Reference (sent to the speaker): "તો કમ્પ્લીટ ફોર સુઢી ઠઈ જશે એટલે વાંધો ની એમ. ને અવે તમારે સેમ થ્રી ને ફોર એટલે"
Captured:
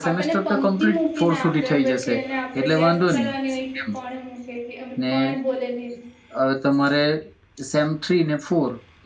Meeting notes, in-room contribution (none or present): present